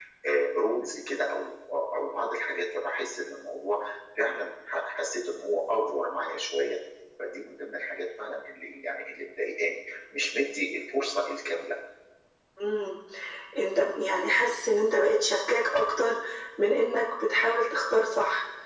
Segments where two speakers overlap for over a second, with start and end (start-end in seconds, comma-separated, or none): none